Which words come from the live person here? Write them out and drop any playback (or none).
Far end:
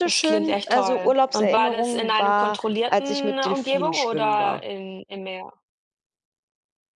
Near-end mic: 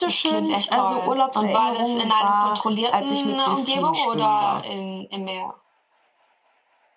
none